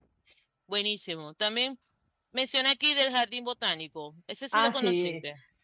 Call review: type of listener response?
taking over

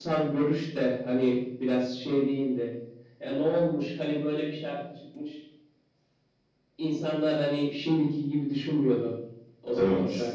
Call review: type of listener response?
listening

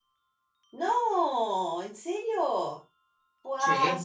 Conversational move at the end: listening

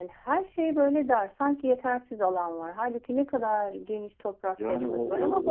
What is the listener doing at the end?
taking over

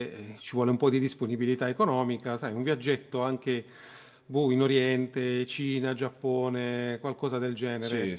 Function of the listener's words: taking over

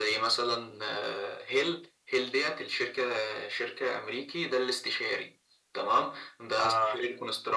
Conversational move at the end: listening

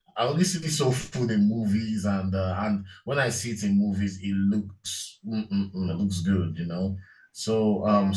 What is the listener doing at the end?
listening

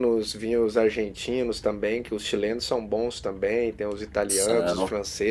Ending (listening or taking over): listening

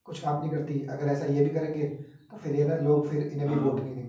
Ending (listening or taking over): taking over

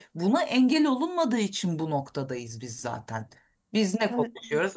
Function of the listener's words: listening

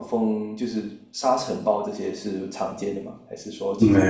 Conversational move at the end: taking over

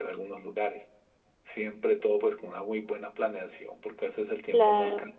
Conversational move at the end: listening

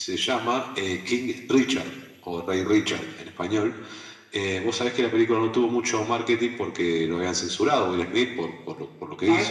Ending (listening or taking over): taking over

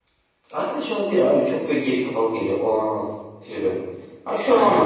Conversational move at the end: listening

